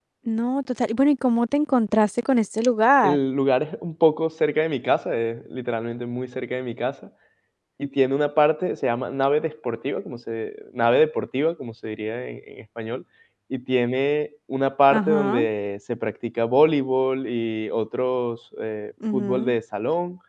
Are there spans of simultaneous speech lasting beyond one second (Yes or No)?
No